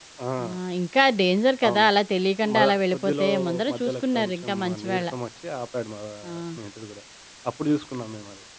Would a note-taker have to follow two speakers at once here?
Yes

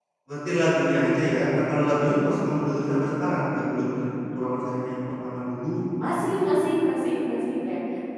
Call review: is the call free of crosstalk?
Yes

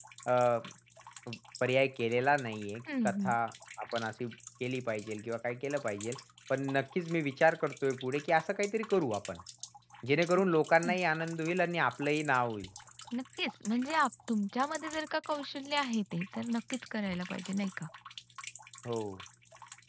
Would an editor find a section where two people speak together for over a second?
No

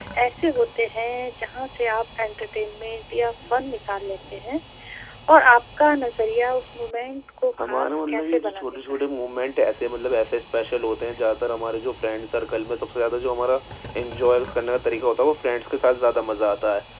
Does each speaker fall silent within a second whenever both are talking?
No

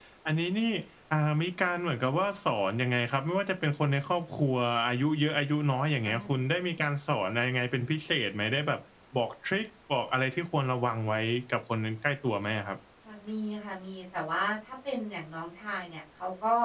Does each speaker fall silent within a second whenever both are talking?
Yes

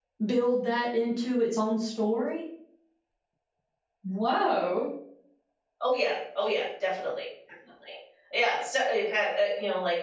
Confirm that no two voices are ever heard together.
Yes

